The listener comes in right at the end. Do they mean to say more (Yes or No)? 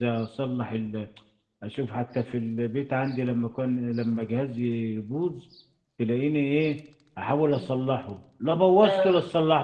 No